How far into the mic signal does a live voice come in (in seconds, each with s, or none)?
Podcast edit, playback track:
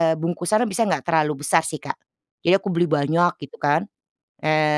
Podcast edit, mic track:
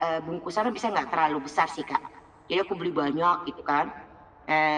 none